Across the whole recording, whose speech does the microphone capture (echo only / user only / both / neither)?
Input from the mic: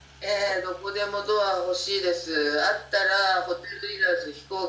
echo only